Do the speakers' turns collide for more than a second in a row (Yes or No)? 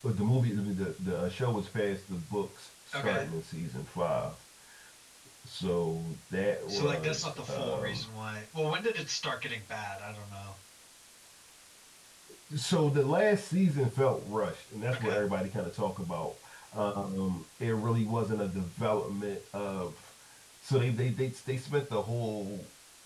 Yes